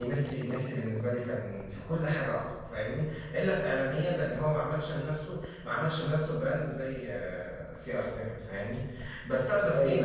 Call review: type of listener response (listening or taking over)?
listening